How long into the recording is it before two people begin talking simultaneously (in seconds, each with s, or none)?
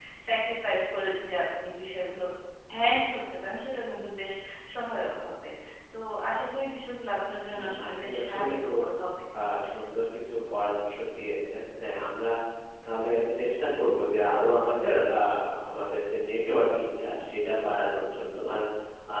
7.5 s